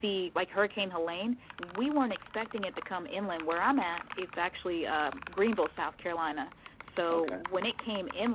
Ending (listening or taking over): listening